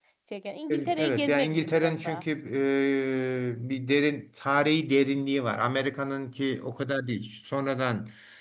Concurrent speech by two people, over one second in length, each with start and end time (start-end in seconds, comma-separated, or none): 1.0-2.2